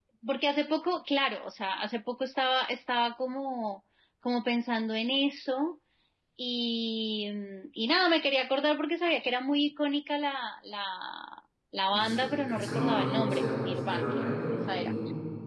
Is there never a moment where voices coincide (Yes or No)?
No